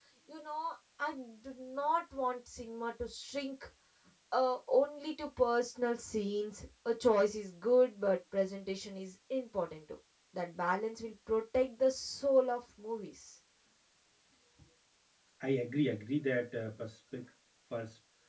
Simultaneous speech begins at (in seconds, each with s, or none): none